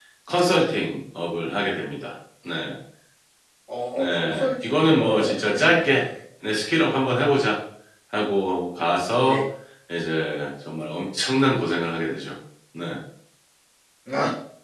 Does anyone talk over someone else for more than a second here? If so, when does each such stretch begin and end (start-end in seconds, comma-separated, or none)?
4.0-6.0